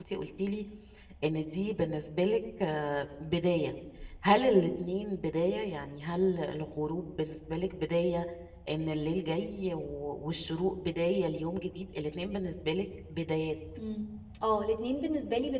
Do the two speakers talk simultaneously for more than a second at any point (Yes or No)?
No